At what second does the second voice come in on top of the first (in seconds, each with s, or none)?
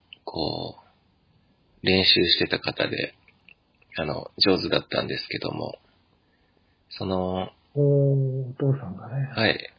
none